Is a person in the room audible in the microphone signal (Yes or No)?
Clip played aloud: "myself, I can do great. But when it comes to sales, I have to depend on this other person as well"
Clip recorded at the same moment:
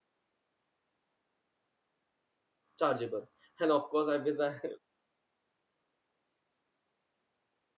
Yes